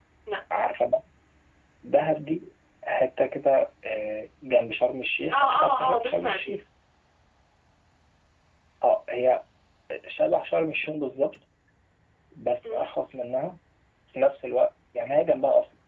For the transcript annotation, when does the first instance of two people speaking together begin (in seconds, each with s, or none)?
5.3 s